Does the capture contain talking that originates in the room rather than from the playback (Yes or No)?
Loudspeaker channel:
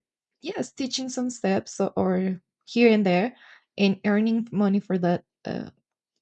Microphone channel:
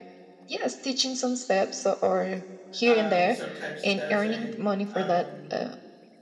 Yes